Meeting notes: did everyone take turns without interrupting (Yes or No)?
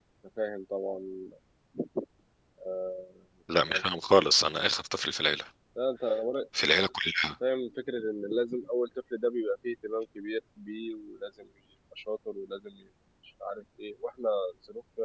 Yes